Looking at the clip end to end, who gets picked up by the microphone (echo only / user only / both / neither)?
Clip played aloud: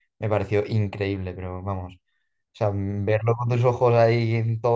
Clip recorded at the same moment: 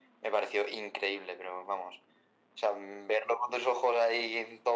echo only